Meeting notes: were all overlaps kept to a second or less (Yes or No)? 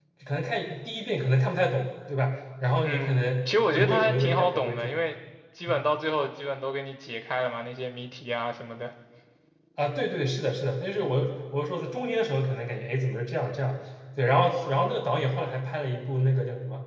No